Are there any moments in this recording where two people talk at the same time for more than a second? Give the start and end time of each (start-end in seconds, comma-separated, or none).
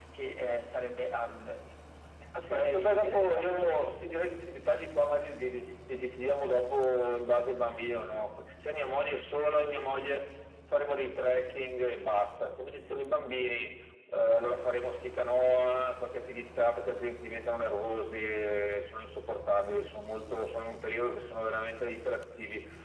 2.4-3.6